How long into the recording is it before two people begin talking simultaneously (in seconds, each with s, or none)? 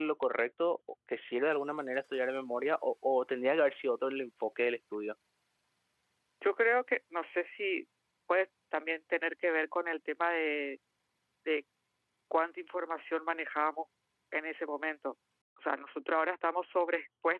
none